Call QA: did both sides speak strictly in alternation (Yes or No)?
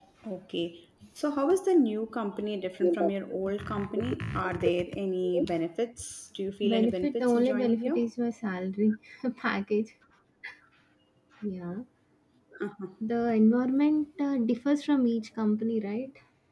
No